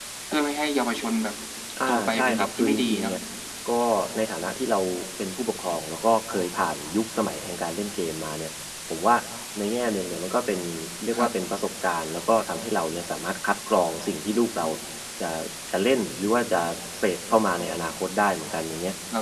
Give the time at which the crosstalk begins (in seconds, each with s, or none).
1.9 s